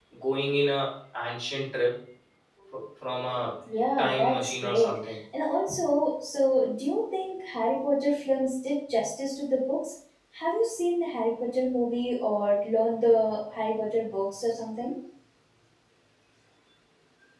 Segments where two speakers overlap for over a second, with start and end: 4.0-5.2

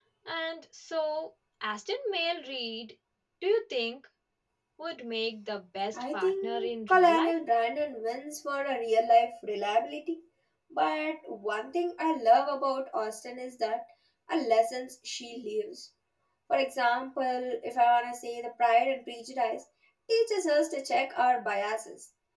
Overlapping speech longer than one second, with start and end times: 5.9-7.3

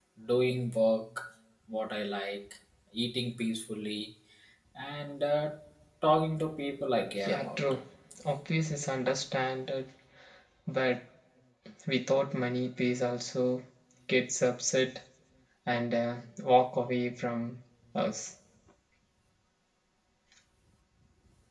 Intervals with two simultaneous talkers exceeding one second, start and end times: none

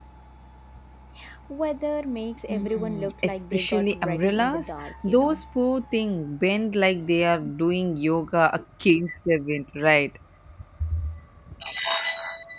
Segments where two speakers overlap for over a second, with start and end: 2.5-5.4

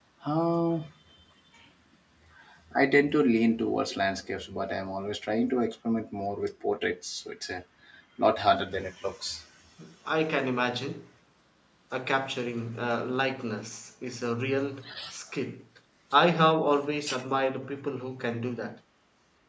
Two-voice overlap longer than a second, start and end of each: none

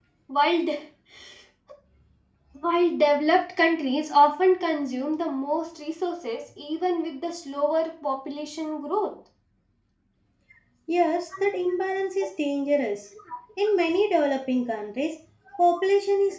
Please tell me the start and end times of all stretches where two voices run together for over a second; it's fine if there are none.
none

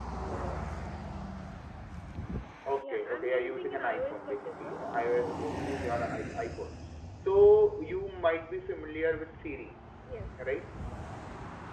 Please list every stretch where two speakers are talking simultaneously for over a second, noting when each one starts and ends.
2.8-4.8

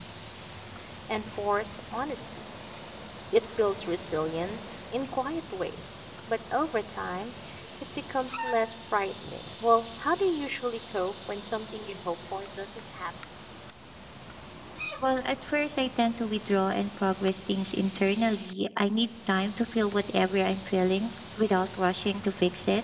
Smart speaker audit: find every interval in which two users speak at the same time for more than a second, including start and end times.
none

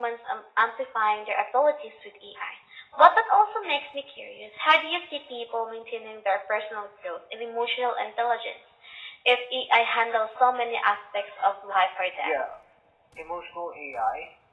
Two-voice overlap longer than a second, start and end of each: none

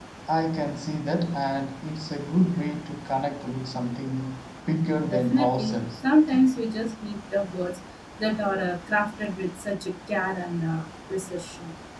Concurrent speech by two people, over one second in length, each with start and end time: 5.1-6.5

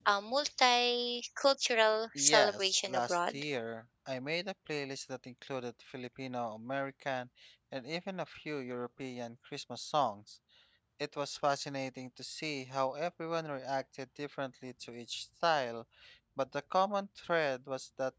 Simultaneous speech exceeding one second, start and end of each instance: 2.2-3.4

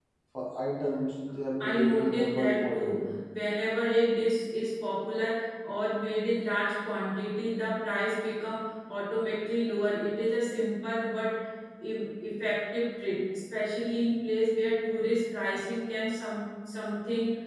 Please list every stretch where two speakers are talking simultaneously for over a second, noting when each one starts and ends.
1.6-3.0

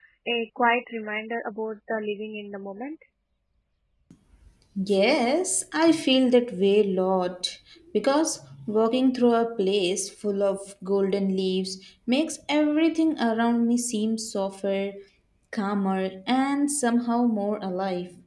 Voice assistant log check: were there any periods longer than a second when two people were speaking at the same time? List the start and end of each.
none

